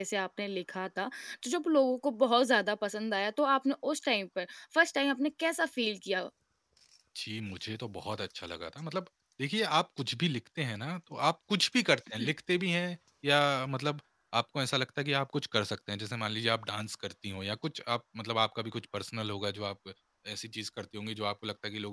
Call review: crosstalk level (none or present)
none